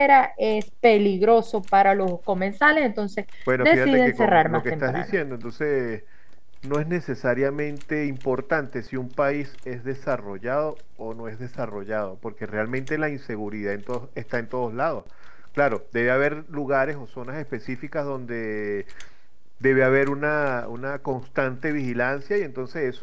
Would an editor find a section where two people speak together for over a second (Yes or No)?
Yes